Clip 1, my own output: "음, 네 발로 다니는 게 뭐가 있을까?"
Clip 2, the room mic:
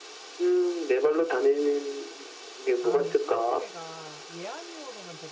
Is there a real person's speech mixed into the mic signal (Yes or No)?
Yes